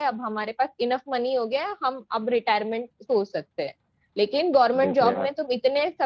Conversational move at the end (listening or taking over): listening